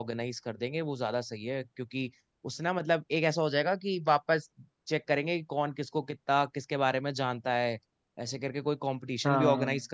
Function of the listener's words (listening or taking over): listening